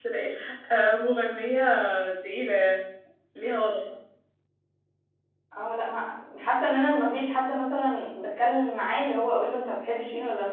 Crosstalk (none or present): none